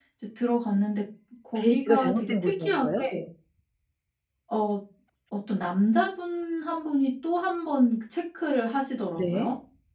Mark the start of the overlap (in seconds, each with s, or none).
1.6 s